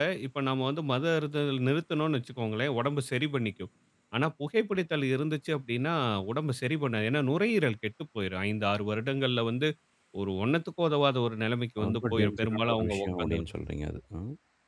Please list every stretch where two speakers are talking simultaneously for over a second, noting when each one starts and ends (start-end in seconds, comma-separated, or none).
11.8-13.4